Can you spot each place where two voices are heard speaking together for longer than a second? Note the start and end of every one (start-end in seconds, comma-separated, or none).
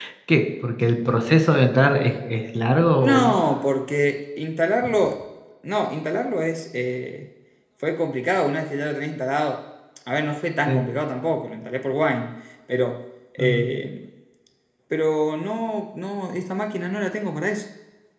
none